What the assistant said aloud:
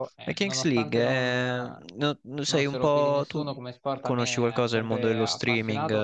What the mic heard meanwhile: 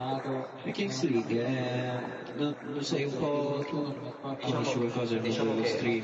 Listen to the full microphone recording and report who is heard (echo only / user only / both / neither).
both